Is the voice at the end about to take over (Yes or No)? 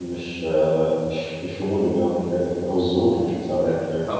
Yes